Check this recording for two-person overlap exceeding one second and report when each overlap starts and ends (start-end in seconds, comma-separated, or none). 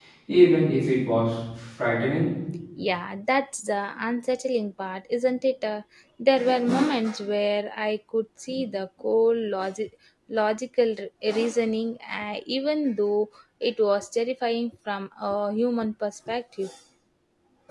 none